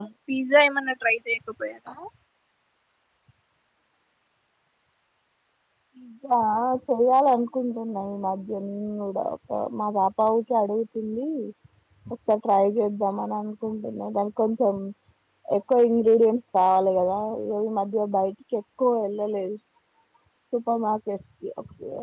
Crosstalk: none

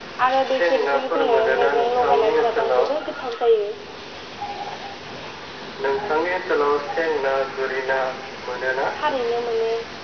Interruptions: present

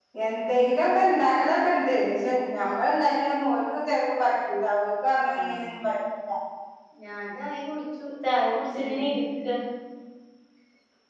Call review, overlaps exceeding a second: none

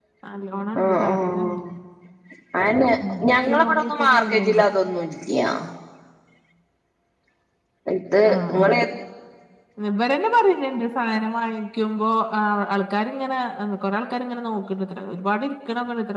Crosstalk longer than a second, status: present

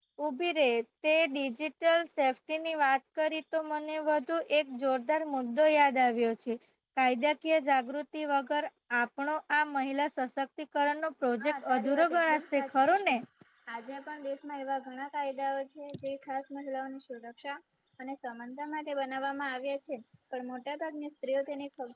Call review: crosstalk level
present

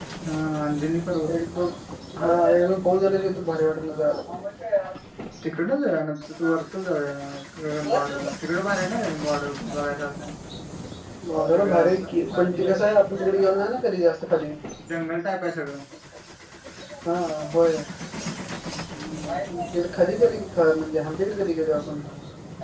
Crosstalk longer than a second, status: none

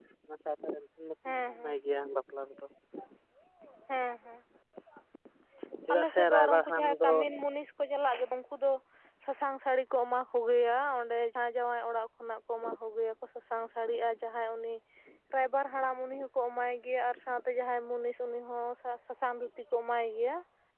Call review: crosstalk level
present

